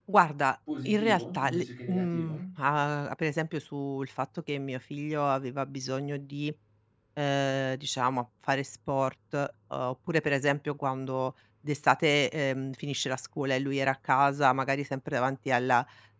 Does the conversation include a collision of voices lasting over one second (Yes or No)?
Yes